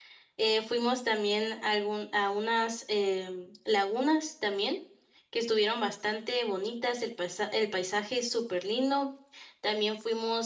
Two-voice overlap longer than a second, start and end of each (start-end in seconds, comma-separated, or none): none